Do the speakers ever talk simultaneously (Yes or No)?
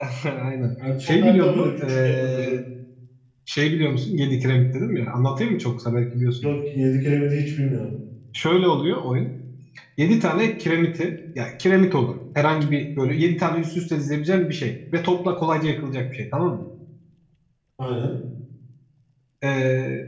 Yes